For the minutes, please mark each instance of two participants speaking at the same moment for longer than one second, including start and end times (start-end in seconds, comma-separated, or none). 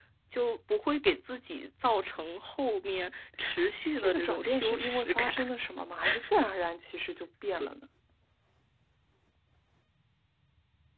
4.0-5.5